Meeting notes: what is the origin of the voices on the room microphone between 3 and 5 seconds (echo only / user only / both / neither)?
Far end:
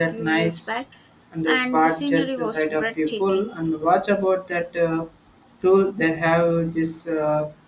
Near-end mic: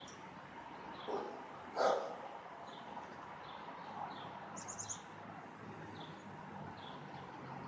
neither